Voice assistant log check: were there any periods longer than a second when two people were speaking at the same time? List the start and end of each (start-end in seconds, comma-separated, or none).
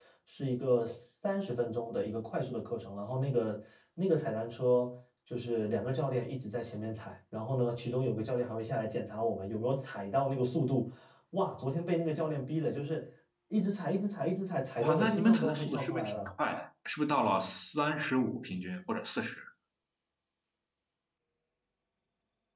14.8-16.3